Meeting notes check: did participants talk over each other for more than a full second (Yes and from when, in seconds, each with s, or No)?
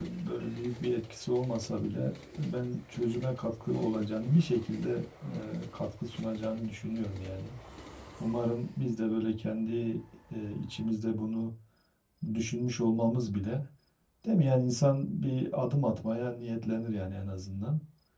No